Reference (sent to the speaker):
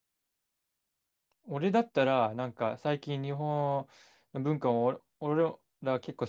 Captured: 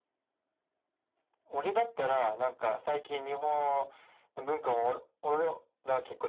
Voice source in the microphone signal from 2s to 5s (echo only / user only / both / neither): echo only